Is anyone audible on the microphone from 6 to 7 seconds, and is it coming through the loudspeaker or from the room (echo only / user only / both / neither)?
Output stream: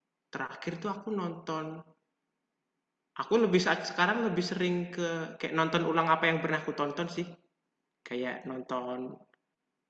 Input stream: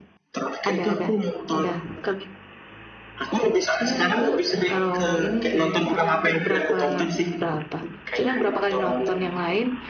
both